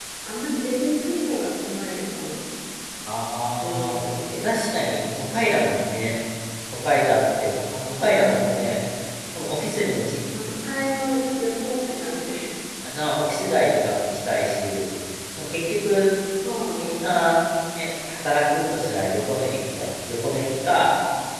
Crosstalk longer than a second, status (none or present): none